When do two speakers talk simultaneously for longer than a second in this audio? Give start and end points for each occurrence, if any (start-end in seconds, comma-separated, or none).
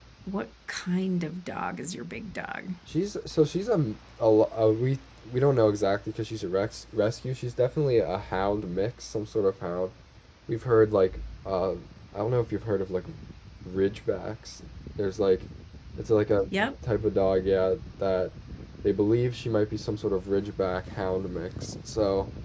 none